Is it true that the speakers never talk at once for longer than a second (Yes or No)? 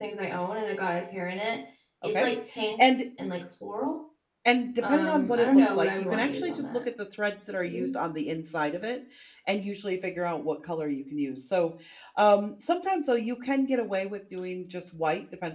No